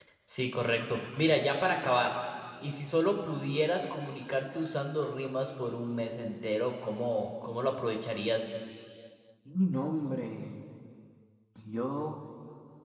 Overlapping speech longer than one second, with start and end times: none

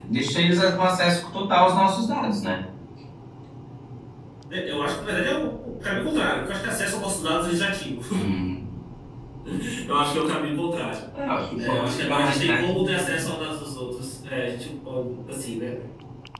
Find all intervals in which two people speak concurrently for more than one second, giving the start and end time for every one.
11.6-13.3

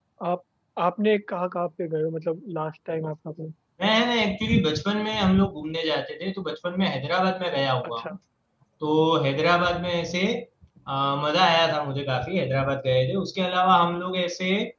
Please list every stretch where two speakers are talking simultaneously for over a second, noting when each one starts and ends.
none

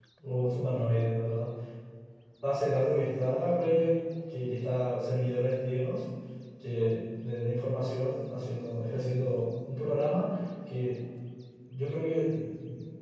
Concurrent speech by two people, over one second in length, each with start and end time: none

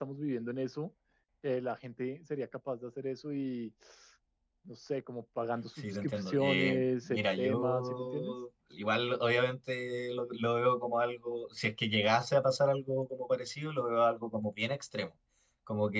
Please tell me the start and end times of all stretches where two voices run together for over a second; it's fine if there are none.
5.8-8.3

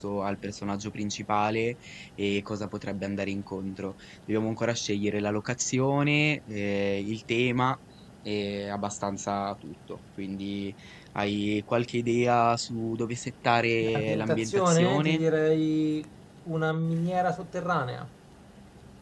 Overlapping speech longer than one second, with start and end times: 13.8-15.2

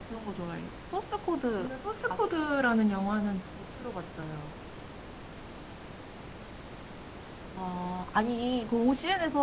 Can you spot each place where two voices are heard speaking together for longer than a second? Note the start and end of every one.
none

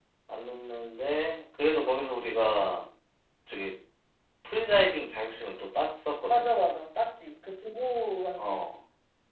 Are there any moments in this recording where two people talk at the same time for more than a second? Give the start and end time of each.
none

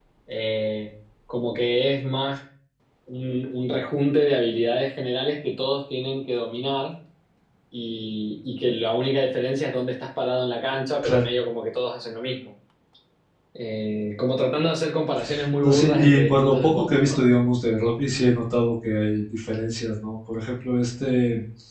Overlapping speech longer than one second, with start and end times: 15.6-17.2

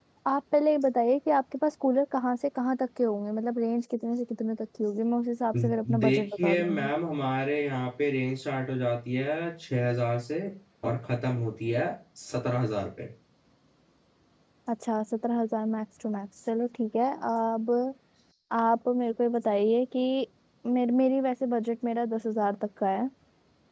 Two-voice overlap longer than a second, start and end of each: 5.6-6.9

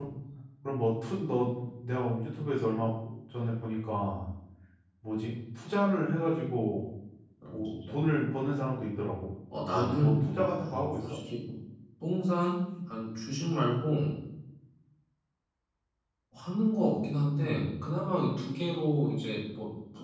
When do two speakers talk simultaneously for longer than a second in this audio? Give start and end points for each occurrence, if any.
9.7-11.2

